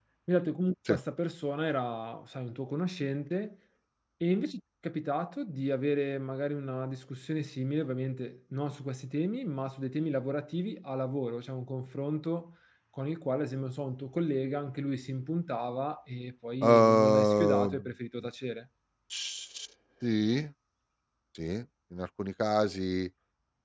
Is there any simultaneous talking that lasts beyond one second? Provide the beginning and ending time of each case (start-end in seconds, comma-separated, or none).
16.6-17.9